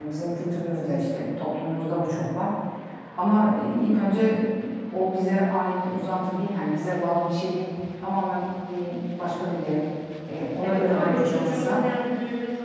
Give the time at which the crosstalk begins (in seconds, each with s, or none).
10.6 s